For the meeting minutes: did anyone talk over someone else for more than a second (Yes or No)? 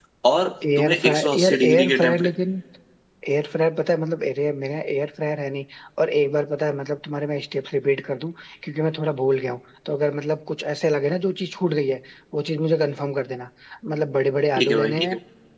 Yes